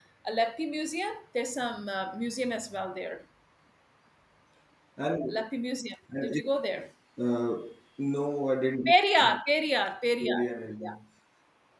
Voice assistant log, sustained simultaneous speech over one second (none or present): none